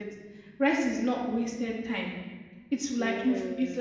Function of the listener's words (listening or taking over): listening